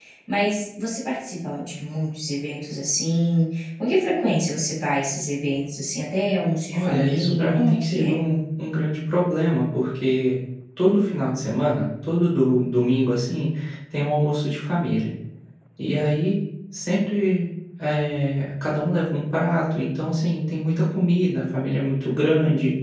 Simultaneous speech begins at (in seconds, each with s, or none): 6.7 s